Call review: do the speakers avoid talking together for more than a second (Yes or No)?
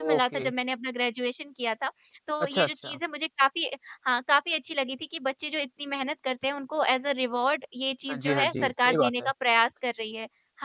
No